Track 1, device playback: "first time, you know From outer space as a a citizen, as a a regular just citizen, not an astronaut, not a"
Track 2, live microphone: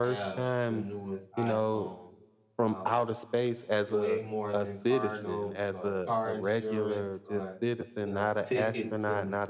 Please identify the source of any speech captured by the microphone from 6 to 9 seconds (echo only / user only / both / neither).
both